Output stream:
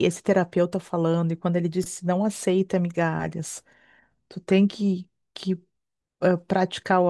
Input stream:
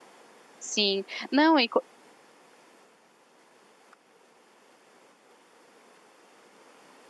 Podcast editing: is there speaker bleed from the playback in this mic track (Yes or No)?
No